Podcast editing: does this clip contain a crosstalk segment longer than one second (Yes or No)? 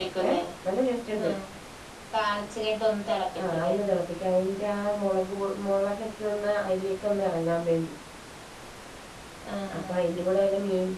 No